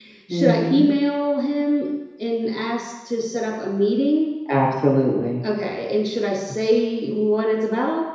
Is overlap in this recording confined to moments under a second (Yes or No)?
Yes